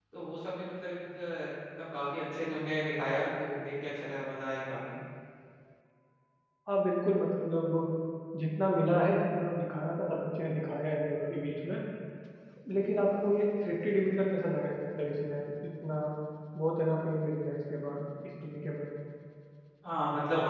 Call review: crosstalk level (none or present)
none